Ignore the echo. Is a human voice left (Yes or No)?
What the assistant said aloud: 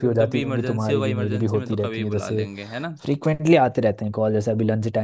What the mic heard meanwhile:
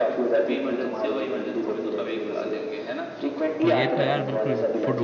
Yes